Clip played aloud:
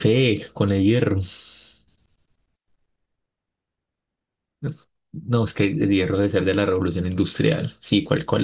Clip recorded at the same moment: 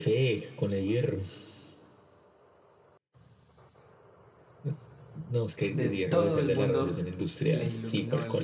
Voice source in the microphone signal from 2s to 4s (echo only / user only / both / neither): neither